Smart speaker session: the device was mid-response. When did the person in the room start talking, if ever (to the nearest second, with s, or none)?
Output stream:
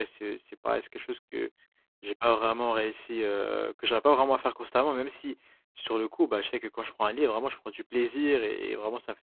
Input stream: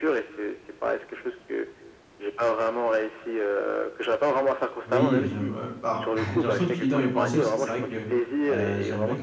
5 s